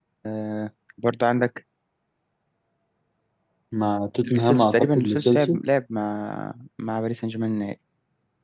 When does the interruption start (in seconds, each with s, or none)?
4.3 s